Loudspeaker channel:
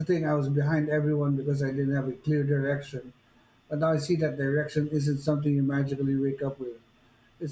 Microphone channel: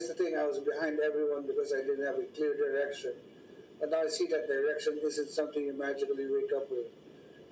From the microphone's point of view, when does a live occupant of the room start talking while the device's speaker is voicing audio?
none

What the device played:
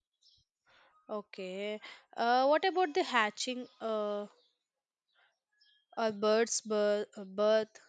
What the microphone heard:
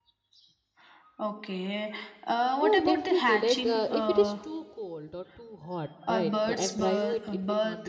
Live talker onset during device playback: 2.6 s

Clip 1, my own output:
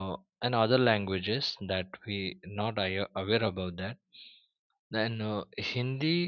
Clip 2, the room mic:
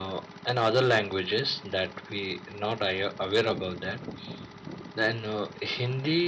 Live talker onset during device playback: none

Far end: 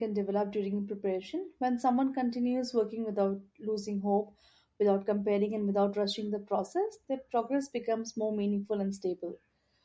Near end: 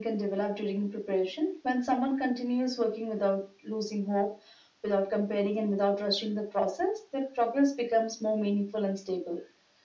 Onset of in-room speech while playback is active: none

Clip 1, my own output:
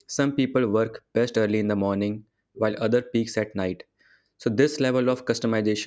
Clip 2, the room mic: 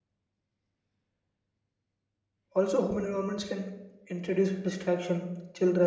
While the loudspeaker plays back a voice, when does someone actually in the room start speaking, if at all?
2.6 s

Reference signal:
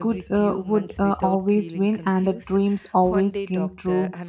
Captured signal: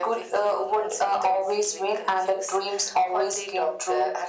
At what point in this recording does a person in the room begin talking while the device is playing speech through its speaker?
none

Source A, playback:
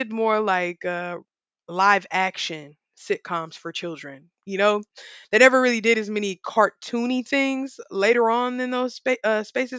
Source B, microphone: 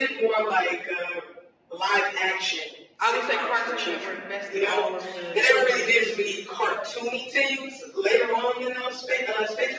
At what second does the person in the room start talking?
3.0 s

